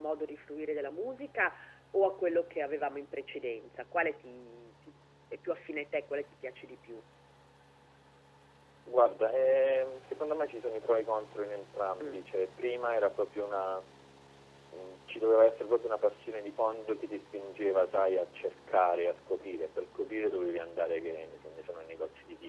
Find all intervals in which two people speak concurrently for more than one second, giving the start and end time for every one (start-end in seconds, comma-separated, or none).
none